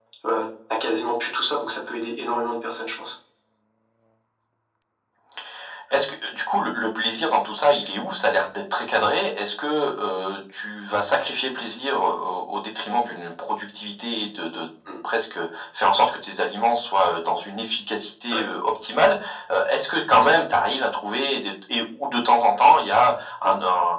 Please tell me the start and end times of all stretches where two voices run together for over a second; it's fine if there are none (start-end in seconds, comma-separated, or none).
none